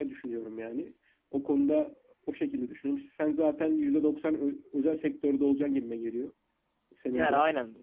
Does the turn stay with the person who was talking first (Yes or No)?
No